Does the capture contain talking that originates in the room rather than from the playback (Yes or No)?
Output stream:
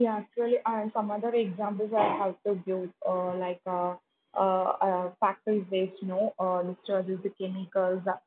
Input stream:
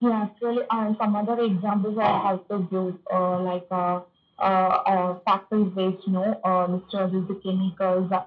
No